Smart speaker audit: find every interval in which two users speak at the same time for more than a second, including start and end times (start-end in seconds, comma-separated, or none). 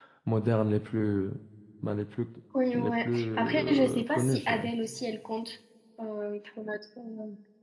2.7-4.7